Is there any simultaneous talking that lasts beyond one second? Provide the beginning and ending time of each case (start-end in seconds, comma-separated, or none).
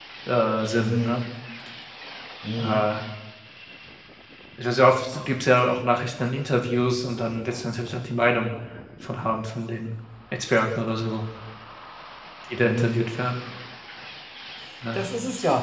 none